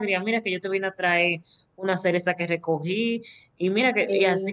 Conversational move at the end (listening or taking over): listening